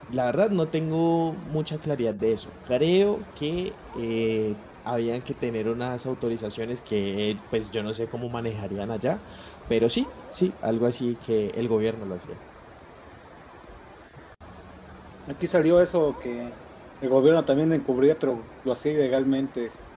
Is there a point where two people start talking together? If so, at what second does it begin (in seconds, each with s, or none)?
none